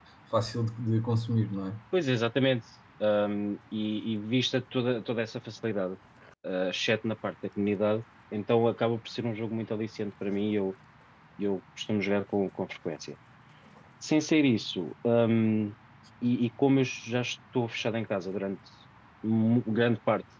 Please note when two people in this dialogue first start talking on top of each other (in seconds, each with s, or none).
none